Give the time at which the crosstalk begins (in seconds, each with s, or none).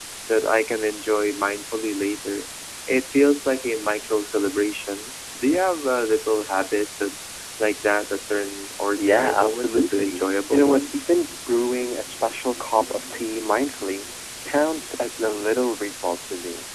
8.7 s